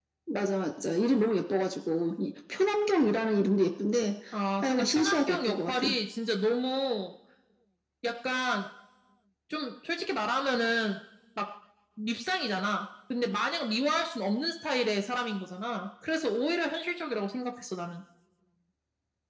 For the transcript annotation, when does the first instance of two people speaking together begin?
4.6 s

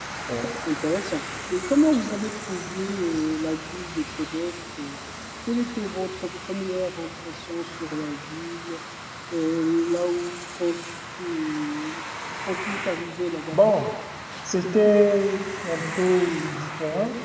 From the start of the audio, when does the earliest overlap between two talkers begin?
none

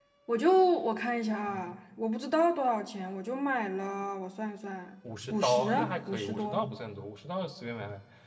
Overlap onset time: 5.3 s

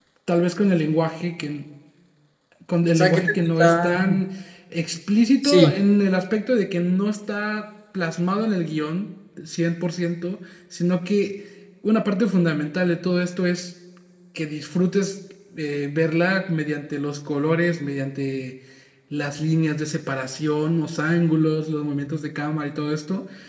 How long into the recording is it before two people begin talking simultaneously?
2.9 s

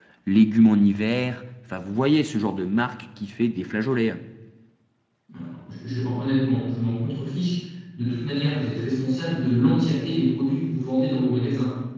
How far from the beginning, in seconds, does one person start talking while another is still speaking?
none

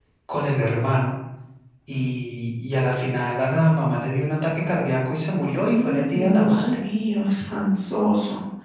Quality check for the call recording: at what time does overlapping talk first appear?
5.6 s

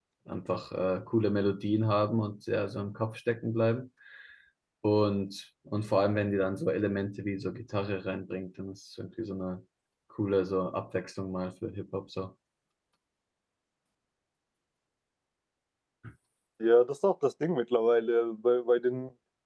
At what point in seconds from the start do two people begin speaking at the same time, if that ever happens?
none

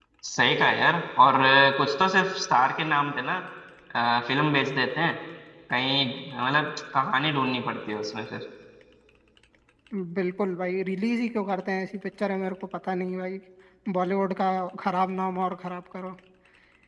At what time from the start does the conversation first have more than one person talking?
none

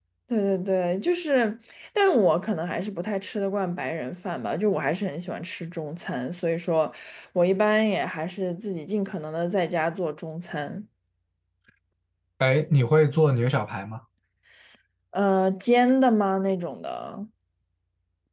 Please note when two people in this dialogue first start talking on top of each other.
none

